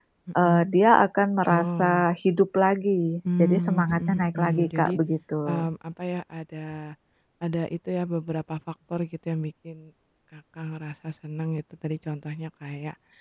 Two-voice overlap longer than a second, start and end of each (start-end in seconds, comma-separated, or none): 3.4-4.9